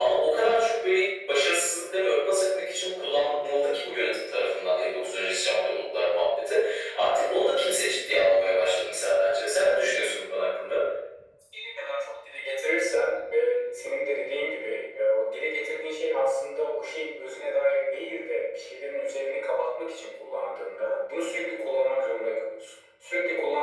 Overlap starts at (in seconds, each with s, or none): none